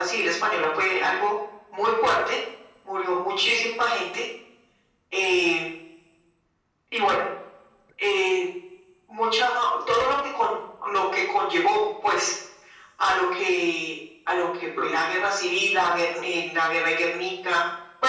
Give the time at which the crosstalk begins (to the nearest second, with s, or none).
none